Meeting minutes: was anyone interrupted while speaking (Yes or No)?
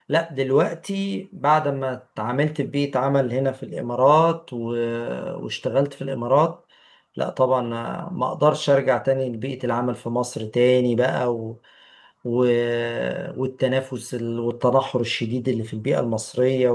No